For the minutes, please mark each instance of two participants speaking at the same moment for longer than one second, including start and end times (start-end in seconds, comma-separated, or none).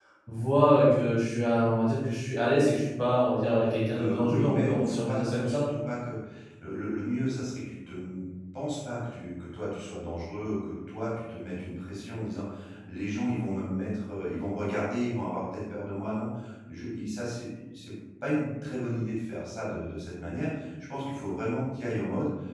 3.9-5.6